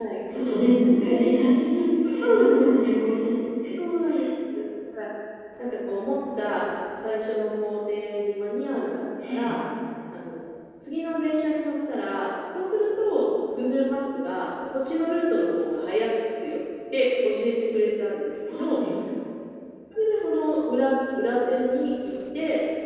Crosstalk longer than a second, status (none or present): none